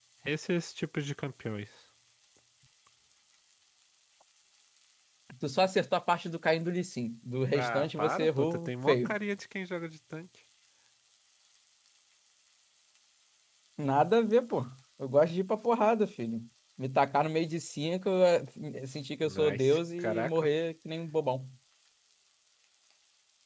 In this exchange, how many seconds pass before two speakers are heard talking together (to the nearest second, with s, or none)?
8 s